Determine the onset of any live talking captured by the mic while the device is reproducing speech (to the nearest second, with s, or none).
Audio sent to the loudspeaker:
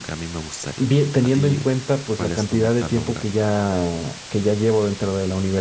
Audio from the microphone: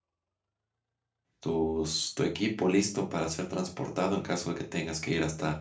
1 s